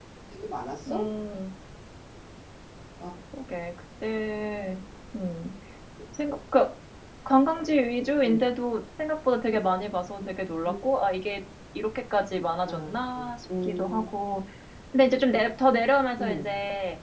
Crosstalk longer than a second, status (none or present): none